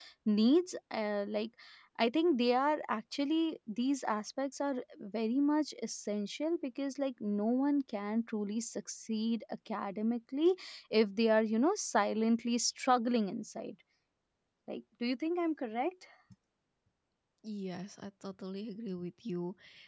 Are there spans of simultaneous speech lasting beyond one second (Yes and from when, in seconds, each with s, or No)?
No